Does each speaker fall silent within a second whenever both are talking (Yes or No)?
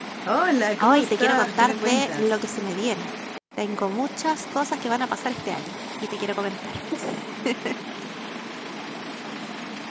No